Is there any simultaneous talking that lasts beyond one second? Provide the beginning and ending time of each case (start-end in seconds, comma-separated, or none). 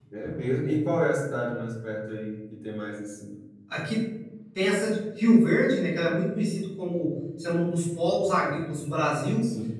none